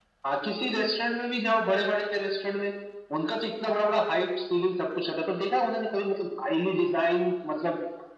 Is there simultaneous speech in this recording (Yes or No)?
No